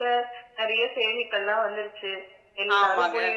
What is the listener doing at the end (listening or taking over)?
listening